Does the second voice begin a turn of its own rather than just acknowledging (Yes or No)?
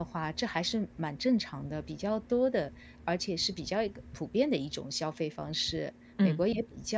No